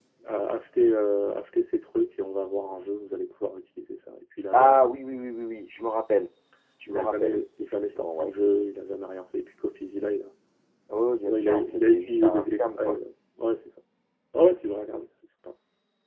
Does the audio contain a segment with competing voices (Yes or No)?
Yes